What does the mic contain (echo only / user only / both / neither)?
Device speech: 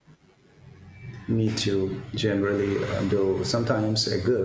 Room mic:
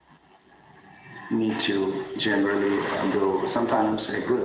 echo only